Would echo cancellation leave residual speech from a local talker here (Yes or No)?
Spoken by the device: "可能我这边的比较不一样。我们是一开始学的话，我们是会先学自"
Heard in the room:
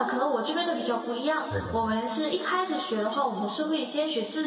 Yes